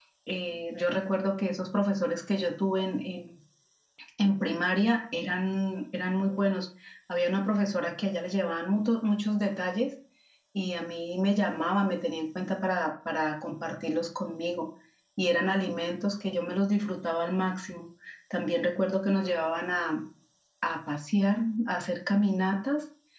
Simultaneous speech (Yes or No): No